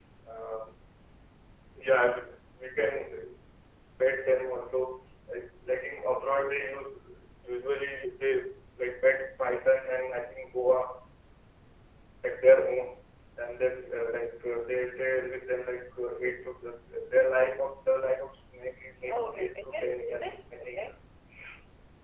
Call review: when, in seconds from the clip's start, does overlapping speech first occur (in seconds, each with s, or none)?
19.0 s